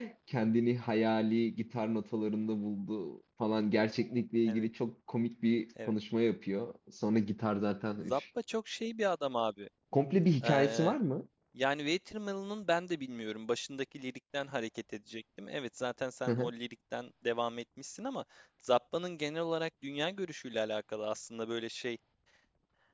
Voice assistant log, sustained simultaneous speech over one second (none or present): none